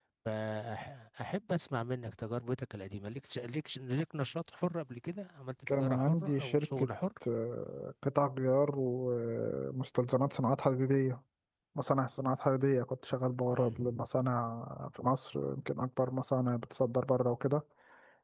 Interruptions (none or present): present